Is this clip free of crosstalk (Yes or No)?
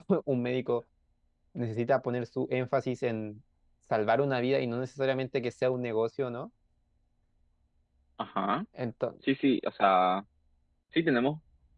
Yes